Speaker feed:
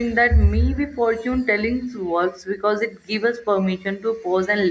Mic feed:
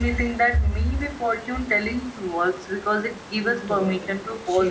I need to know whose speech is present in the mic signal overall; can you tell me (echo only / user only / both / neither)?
both